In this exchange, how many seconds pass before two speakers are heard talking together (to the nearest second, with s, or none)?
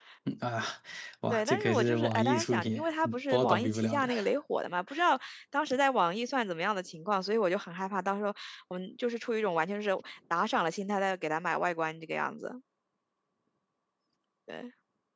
1 s